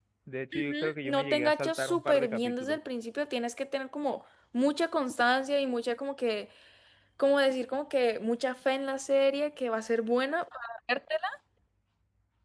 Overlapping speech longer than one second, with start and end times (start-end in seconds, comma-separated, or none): 0.5-2.8